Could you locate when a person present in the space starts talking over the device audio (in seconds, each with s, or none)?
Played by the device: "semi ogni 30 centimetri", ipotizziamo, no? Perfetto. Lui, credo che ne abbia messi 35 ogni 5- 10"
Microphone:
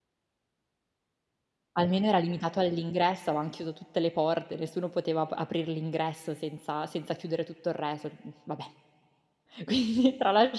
1.7 s